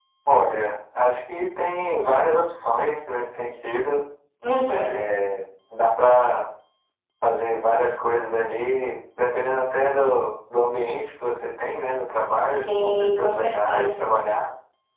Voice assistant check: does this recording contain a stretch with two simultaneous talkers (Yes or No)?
Yes